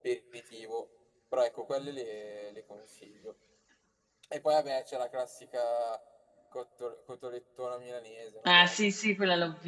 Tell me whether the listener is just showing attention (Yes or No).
No